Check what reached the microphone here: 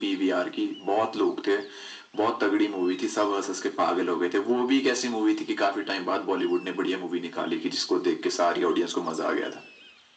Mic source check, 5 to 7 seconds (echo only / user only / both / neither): echo only